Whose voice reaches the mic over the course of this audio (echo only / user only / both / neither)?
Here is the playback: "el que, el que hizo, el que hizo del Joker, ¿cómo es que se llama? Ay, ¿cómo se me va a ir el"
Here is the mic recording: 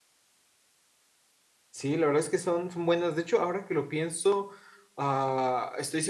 user only